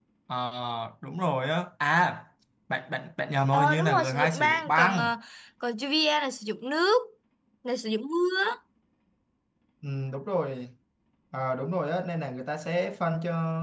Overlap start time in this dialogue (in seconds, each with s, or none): 3.5 s